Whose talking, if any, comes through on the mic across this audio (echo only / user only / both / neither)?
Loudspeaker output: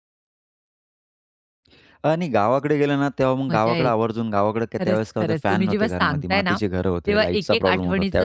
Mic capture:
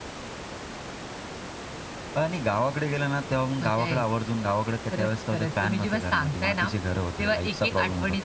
echo only